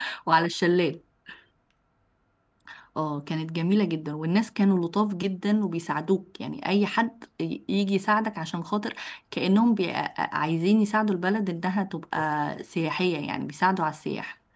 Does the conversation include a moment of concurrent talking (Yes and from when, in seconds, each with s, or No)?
No